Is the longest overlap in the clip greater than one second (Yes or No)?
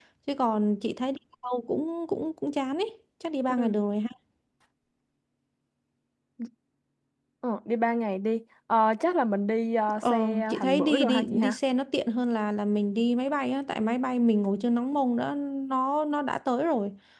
Yes